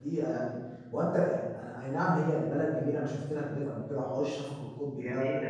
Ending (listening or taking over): listening